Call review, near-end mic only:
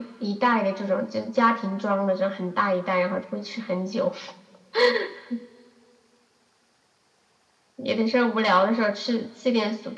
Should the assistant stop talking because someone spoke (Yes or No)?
No